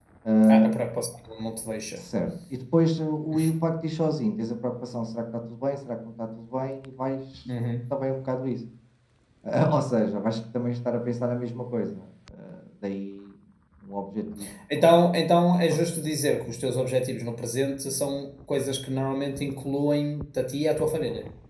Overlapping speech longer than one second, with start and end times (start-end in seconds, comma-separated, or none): none